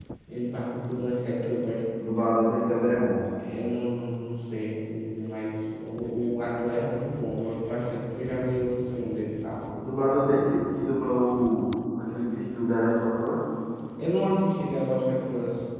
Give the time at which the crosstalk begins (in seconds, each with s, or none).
none